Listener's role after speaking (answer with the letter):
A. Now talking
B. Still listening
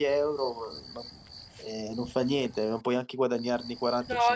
A